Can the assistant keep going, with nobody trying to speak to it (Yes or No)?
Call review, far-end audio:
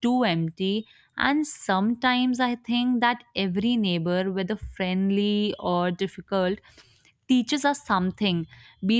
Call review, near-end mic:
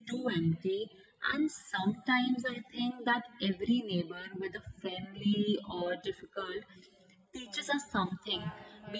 No